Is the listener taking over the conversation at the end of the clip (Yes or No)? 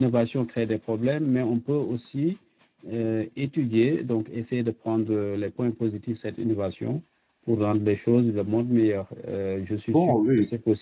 No